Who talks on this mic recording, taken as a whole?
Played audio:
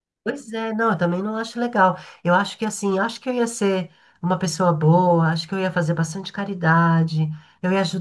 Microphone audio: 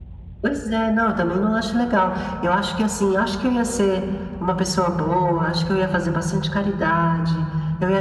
echo only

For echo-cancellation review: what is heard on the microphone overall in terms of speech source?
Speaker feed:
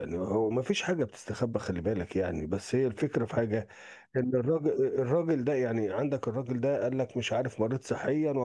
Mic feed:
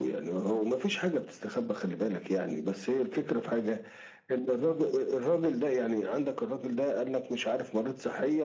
echo only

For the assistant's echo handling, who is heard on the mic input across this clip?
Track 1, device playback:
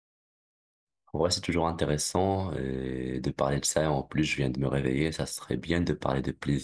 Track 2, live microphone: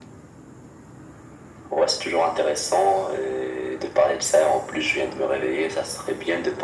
echo only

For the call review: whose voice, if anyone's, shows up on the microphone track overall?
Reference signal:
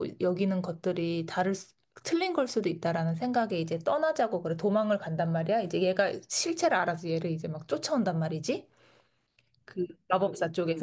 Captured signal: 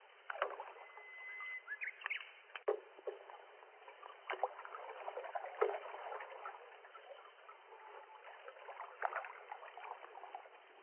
neither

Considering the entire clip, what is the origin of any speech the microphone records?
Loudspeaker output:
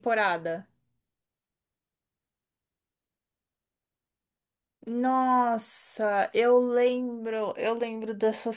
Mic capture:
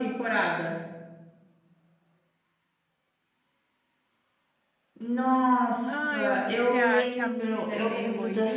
both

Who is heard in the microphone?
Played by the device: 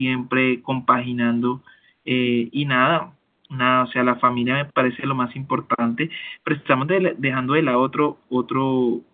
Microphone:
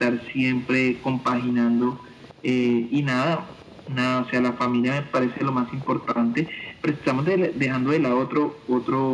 echo only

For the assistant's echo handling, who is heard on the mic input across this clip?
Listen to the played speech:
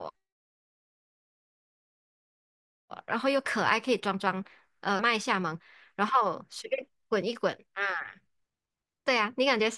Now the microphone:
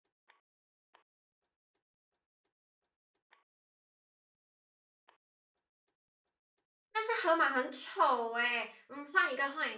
user only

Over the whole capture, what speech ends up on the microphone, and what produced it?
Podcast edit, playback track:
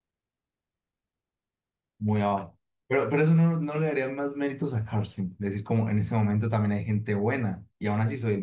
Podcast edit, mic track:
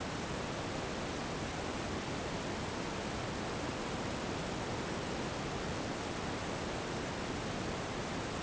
neither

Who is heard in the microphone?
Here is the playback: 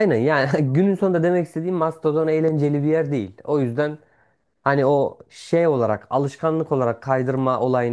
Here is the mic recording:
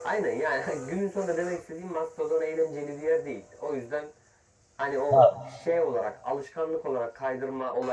both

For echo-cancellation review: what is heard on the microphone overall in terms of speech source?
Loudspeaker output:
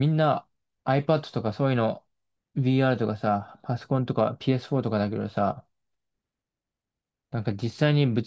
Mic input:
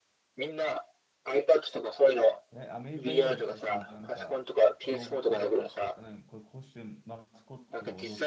both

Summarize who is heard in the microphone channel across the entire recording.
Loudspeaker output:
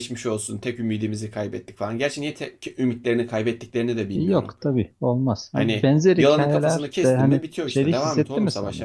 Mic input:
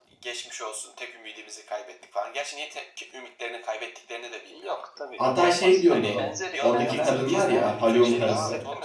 both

